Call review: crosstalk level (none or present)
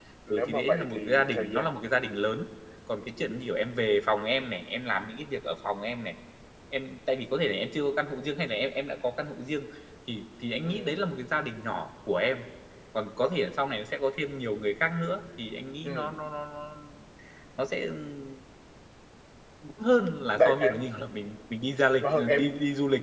present